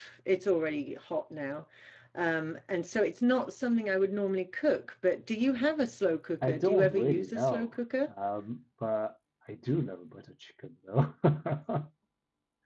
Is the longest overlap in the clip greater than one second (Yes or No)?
Yes